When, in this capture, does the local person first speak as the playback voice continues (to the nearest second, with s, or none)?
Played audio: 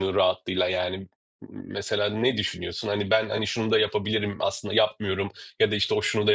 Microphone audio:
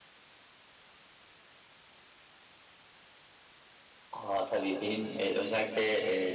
4 s